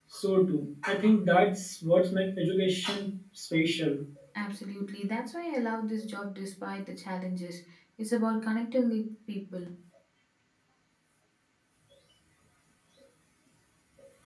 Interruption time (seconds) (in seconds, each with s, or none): none